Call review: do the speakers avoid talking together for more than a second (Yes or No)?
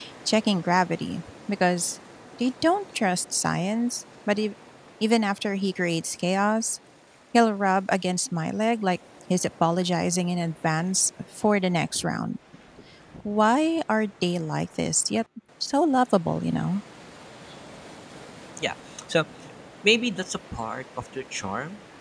Yes